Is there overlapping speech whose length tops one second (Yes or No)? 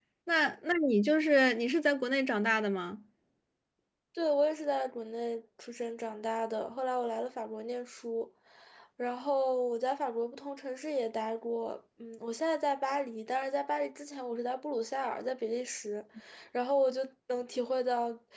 No